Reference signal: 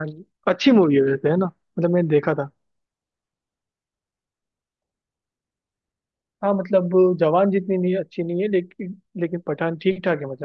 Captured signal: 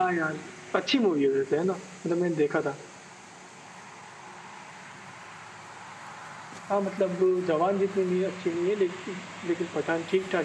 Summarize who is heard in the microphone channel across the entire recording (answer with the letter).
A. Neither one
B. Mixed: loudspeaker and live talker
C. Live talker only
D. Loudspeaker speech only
D